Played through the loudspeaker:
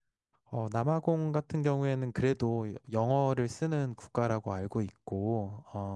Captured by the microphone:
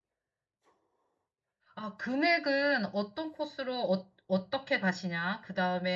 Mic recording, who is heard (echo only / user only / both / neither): user only